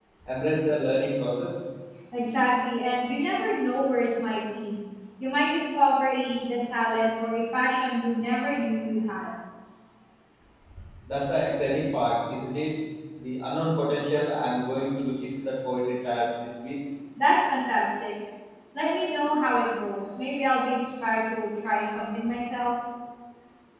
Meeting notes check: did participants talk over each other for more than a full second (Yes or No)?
No